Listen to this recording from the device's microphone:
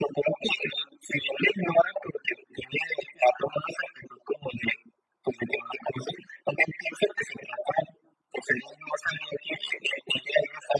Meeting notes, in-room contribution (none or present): none